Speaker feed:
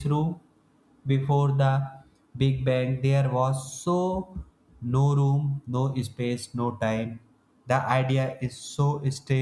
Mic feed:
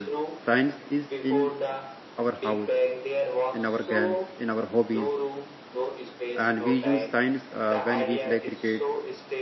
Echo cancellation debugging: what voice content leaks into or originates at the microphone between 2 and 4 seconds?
both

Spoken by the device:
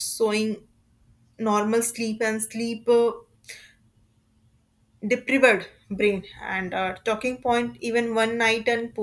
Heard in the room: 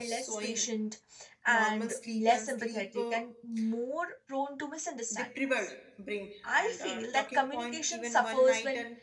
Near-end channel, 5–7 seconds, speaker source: both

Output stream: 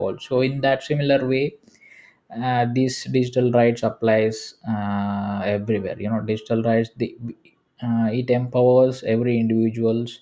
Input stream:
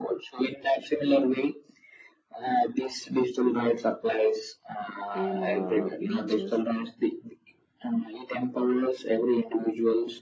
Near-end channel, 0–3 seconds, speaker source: echo only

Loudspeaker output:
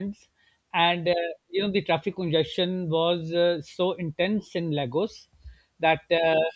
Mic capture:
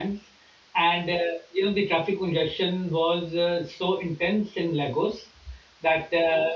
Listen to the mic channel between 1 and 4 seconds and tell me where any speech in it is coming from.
echo only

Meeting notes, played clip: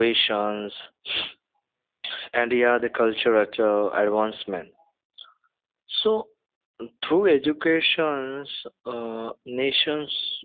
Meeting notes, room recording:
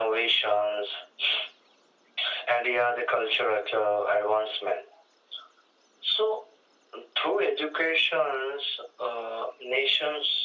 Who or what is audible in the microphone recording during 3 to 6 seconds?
echo only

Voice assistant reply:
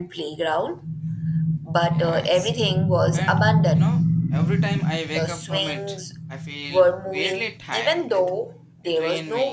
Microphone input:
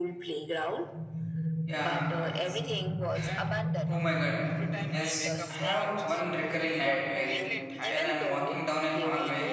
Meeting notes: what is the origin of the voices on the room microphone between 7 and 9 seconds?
both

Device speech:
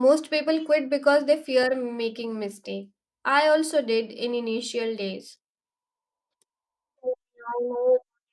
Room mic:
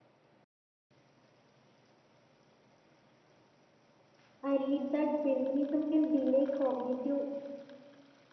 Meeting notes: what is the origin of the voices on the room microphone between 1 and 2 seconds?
neither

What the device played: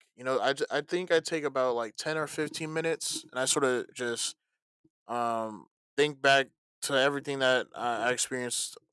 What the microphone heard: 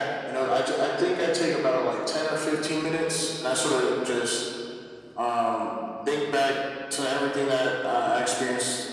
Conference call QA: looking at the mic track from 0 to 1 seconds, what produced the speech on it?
echo only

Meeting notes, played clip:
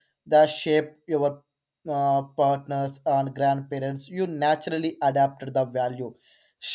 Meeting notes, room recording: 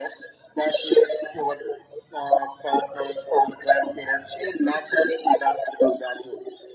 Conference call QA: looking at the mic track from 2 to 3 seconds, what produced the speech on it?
echo only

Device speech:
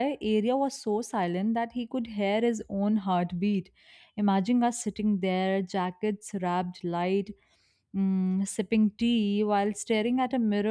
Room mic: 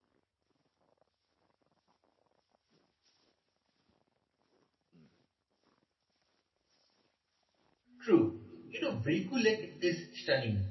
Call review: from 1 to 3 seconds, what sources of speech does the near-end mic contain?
neither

